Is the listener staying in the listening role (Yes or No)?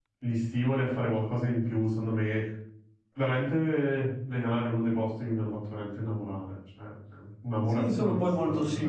No